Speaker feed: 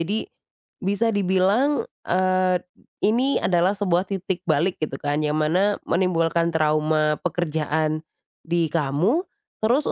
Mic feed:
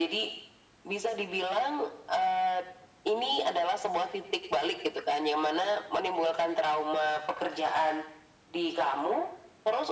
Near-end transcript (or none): none